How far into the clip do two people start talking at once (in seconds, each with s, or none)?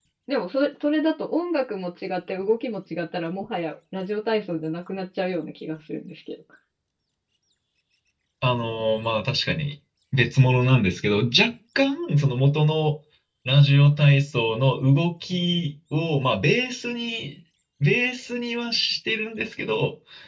none